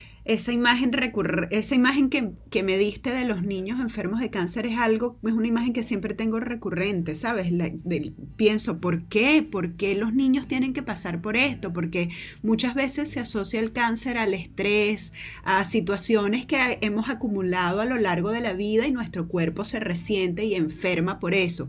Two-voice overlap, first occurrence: none

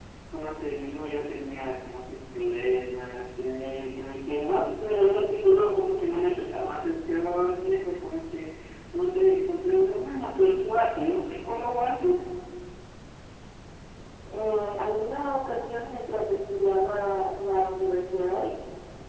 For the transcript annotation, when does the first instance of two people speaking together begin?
none

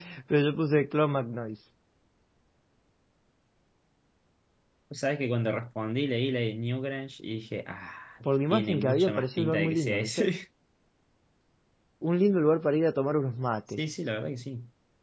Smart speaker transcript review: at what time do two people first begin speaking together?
8 s

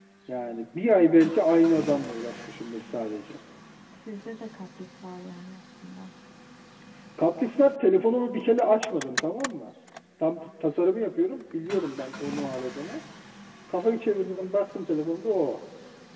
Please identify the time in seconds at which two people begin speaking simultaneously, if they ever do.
none

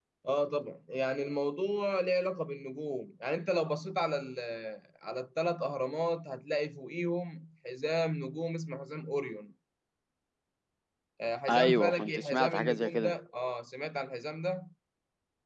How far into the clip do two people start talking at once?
11 s

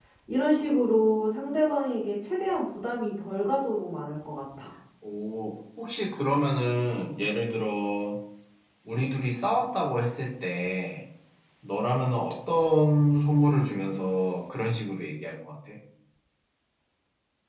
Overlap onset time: none

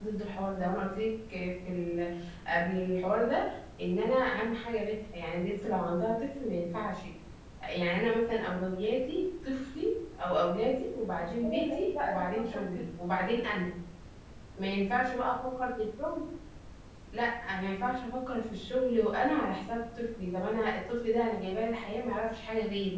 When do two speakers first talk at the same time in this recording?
11 s

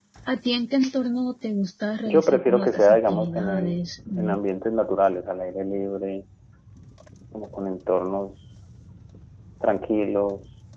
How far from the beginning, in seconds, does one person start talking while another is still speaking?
2 s

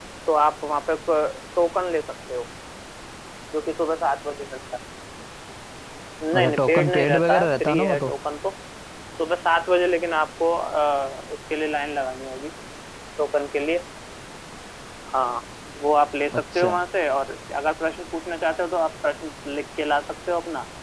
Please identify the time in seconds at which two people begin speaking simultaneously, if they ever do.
6 s

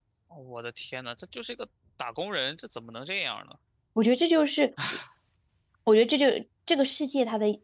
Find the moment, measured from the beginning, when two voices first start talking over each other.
none

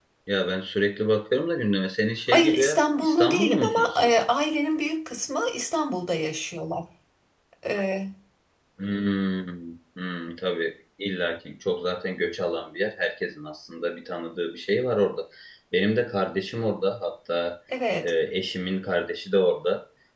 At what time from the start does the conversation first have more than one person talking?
2 s

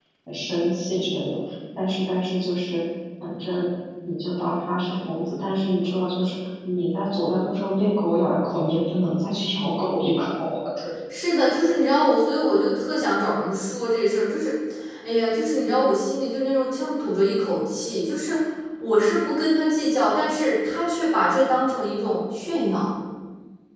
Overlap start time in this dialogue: none

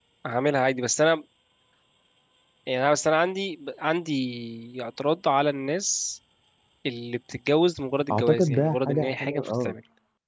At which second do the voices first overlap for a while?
8 s

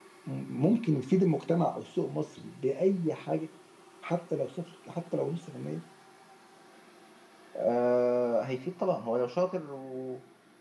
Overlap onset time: none

